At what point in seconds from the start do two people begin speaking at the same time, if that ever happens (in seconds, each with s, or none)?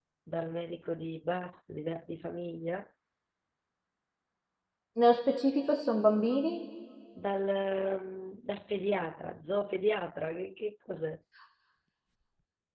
none